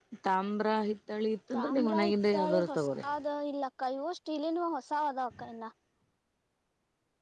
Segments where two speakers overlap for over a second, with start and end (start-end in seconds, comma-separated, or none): 1.5-3.0